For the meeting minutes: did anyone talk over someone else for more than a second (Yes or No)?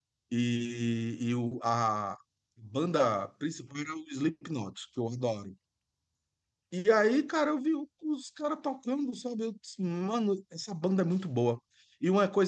No